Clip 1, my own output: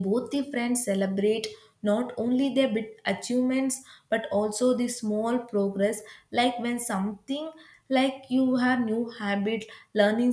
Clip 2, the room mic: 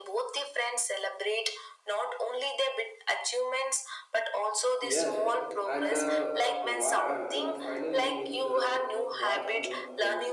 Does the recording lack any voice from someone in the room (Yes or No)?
No